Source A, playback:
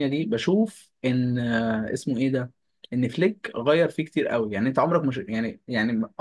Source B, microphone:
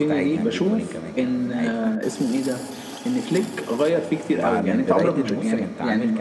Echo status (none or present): present